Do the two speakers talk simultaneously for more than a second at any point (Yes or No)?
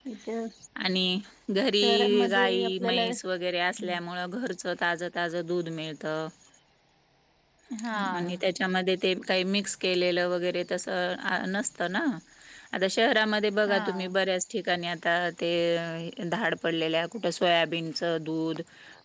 Yes